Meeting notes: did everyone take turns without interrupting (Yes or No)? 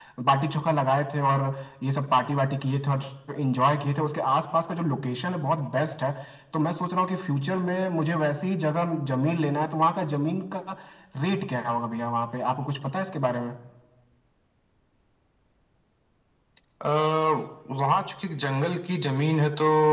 Yes